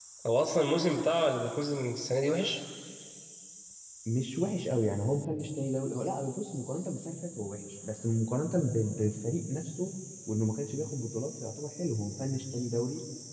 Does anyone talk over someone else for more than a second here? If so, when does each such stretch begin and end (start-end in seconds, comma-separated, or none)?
none